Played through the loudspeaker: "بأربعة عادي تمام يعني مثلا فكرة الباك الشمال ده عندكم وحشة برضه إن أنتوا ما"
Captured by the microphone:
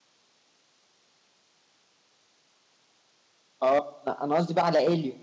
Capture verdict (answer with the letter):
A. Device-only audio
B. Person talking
B